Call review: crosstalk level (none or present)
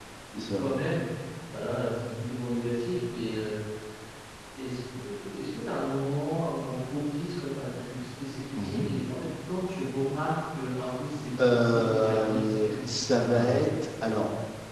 present